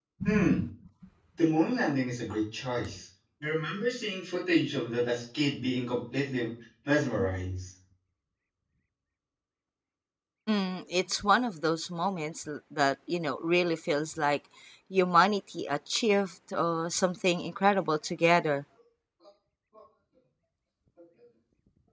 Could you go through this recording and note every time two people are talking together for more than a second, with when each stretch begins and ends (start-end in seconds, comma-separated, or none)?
none